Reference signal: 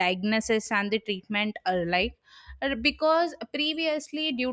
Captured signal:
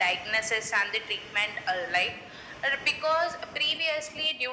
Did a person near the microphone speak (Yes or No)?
No